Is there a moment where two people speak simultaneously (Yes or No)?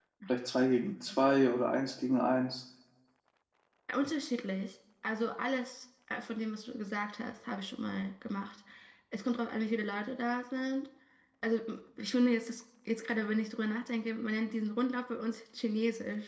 No